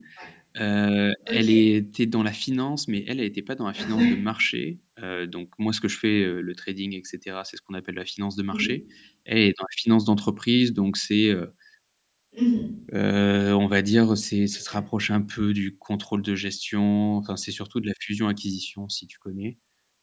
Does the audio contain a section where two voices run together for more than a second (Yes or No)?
No